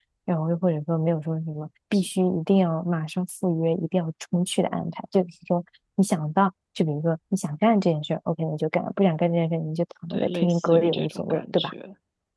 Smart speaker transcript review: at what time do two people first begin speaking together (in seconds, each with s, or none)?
10.1 s